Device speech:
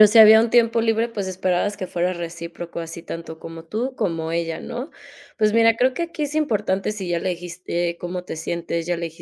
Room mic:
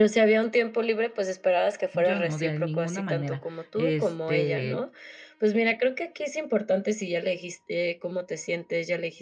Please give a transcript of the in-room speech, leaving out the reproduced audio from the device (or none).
Yo no, de ninguna manera, este